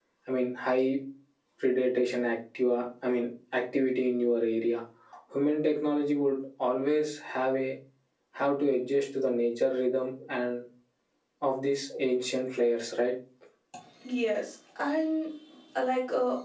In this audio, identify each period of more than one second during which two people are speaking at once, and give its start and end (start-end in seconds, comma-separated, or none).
none